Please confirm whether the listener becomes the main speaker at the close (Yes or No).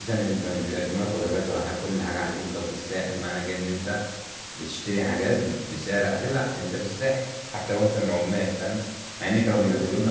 No